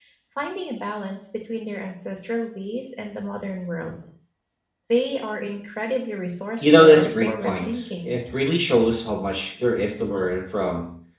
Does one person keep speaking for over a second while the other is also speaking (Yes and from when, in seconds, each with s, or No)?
Yes, from 6.6 s